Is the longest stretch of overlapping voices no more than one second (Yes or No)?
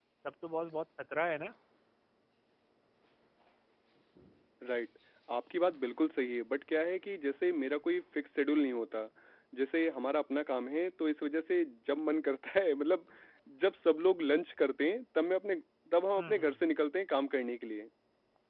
Yes